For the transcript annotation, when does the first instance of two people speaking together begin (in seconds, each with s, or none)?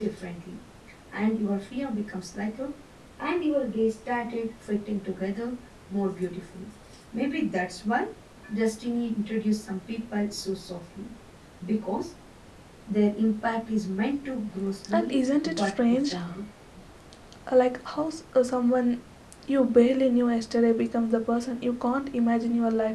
14.9 s